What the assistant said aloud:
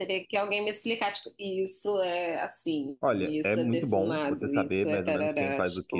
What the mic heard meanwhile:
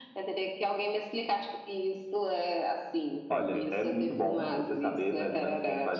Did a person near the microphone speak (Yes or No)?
Yes